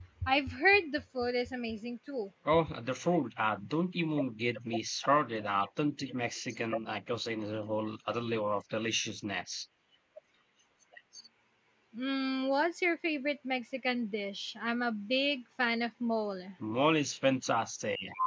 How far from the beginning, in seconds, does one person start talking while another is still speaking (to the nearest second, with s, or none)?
none